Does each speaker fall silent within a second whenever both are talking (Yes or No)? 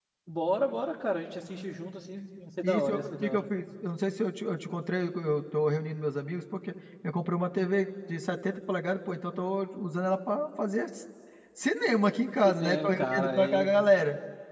No